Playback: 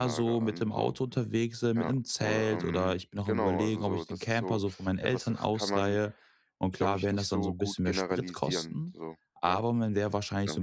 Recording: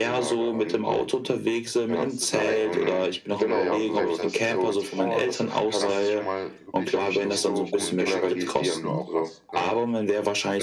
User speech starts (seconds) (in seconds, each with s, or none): 2.0 s